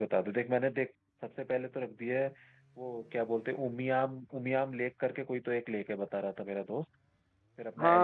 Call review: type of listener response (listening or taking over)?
taking over